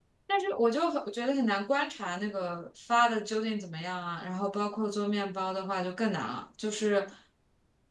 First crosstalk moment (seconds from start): none

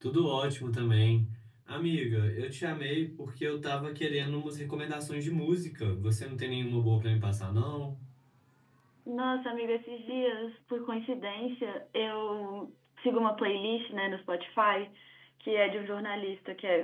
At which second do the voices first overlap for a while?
none

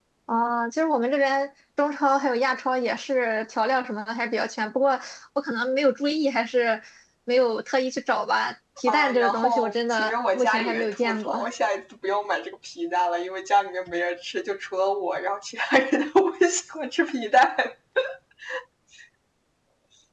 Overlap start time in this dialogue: 8.9 s

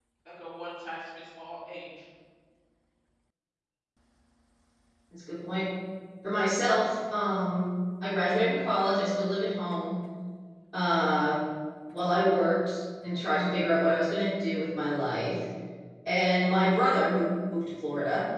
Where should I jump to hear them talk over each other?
none

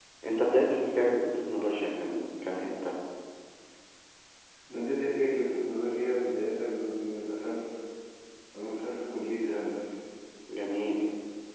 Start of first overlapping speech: none

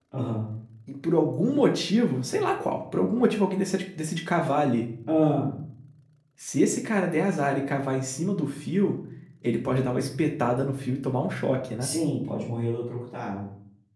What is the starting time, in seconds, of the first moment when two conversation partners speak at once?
none

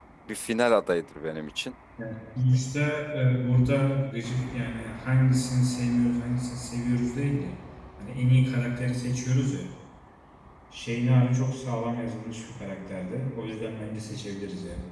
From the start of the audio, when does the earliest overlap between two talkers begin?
none

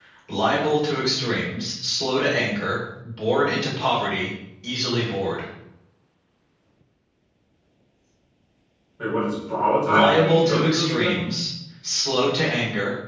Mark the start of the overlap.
9.9 s

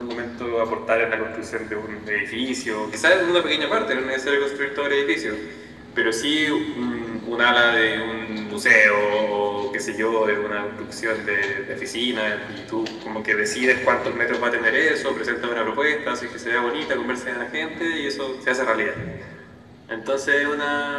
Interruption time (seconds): none

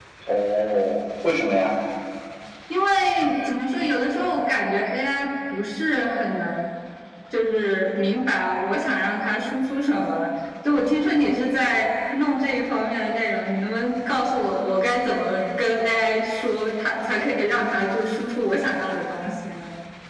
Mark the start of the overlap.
none

